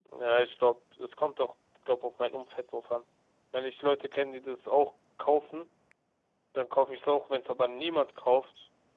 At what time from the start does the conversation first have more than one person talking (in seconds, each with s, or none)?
none